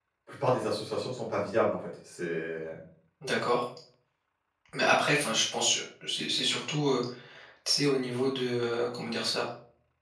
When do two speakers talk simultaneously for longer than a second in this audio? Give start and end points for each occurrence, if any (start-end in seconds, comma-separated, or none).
none